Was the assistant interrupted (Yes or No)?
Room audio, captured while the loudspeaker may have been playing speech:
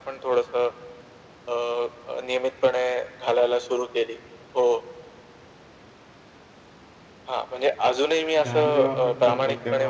Yes